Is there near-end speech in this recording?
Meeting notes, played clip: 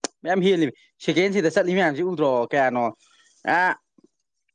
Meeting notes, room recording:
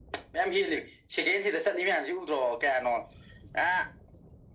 No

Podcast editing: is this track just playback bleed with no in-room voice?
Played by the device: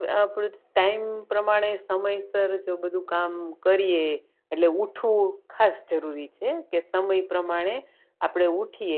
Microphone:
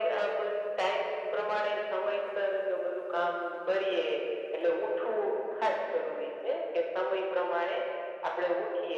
Yes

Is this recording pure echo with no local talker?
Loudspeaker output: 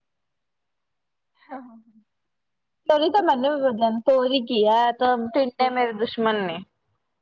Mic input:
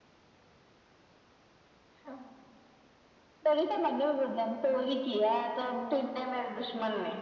Yes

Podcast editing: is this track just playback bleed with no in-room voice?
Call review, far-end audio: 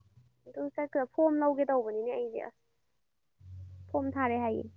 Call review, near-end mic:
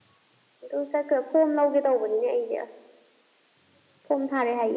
Yes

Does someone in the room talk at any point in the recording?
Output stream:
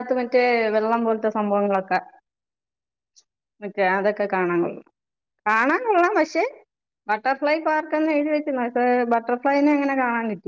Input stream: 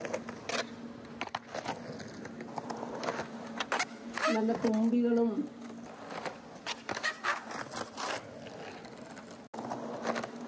Yes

